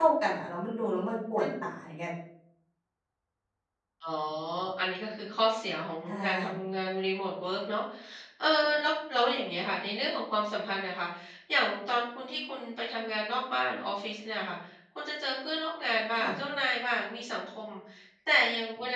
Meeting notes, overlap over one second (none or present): none